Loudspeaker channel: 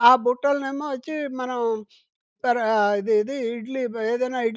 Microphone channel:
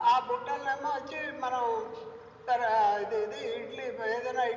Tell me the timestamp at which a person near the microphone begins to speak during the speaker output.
none

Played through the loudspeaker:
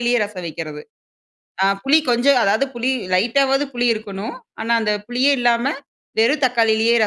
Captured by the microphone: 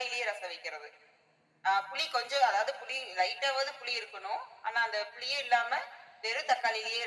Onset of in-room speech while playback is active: none

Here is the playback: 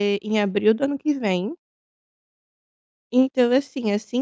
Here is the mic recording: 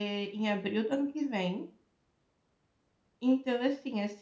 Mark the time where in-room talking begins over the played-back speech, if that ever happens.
none

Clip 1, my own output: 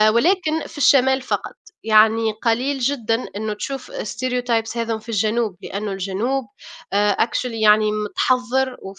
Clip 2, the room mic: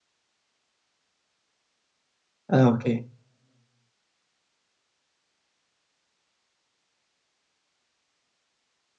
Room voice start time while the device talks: 2.5 s

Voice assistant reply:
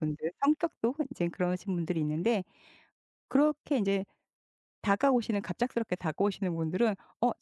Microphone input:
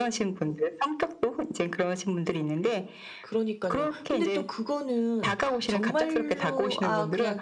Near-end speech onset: 3.2 s

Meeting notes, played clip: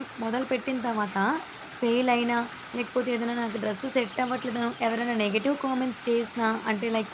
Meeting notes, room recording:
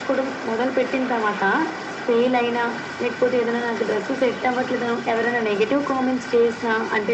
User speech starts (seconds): none

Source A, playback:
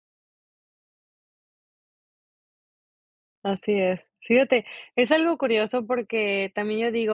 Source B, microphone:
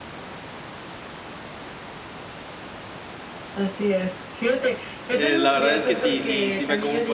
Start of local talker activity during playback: 5.1 s

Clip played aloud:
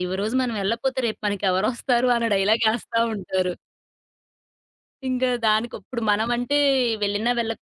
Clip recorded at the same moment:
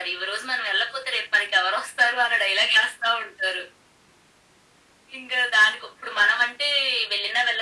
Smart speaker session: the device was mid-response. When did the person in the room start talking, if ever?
none

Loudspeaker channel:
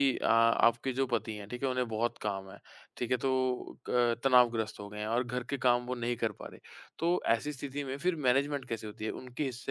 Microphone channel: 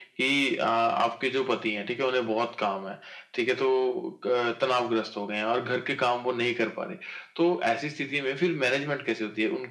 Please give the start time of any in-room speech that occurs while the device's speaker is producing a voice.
none

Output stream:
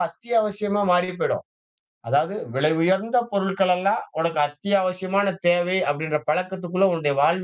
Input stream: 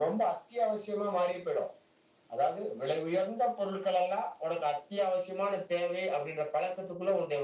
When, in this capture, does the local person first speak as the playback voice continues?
none

